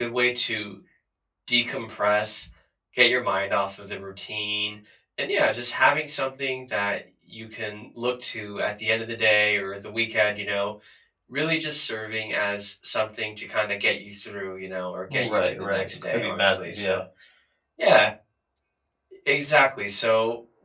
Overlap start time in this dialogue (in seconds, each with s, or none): 15.1 s